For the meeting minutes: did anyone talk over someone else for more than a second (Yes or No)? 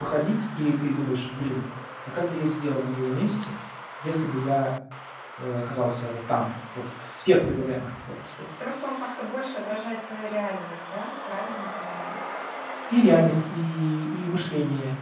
No